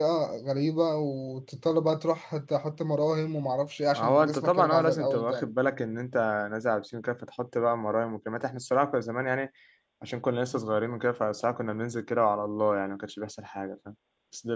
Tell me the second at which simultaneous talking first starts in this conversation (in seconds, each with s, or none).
3.9 s